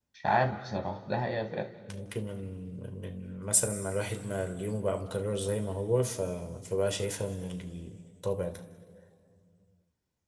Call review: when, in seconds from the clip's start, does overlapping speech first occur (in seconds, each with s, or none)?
none